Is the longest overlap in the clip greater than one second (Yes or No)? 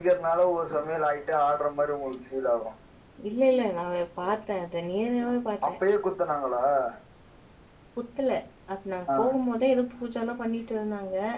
No